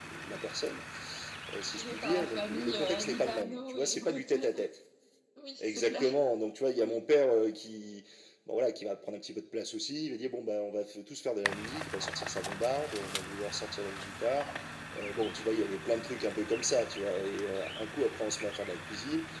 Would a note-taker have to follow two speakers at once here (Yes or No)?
Yes